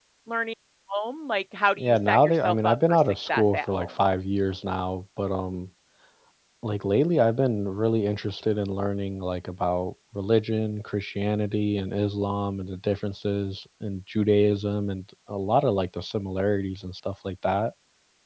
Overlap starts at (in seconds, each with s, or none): 1.8 s